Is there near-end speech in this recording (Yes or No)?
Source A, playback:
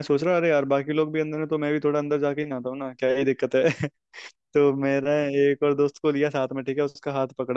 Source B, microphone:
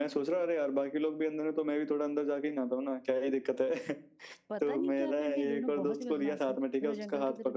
Yes